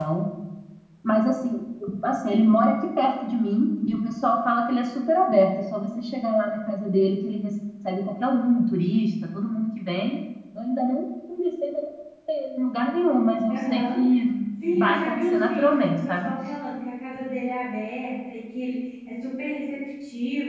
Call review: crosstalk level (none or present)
present